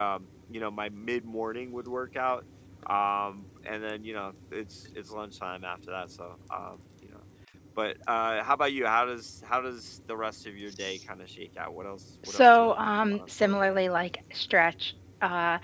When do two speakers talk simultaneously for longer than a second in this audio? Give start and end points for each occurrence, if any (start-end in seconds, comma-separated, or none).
12.3-13.8